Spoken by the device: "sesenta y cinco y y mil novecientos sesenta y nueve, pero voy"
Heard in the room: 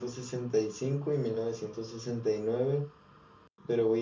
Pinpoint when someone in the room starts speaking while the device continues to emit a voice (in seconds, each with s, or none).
none